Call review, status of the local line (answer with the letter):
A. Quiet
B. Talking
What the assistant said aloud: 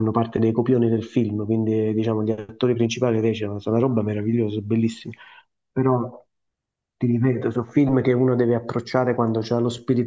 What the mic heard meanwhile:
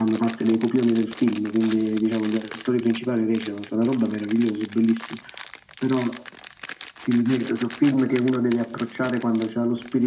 A